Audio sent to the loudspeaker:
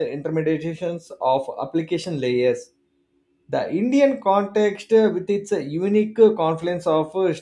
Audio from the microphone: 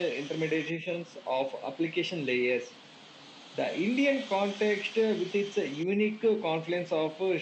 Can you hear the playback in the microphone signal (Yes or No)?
Yes